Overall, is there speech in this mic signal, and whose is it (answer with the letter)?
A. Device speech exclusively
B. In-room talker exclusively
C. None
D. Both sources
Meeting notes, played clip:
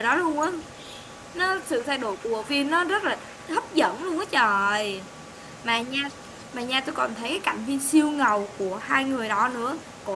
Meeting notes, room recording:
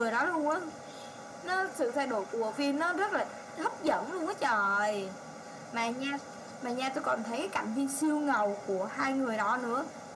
A